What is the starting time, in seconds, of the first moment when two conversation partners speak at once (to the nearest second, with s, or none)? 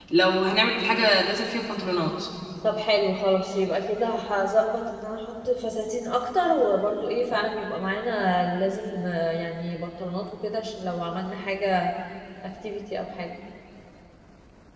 none